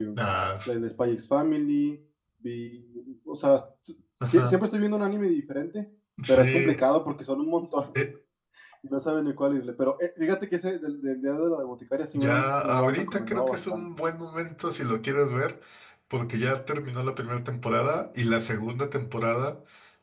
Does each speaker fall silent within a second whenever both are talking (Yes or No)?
No